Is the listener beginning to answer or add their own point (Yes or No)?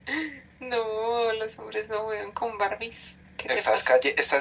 Yes